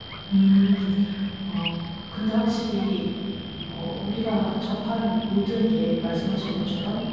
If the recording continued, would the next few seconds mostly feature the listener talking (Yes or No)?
No